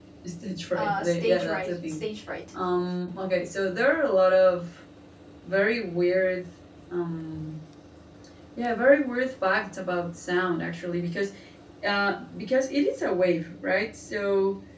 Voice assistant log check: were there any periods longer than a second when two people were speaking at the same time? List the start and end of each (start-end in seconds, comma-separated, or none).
0.8-2.0